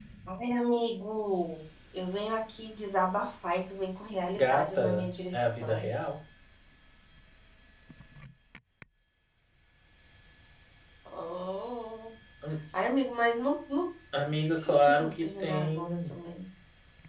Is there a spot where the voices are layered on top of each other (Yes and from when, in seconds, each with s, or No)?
Yes, from 4.4 s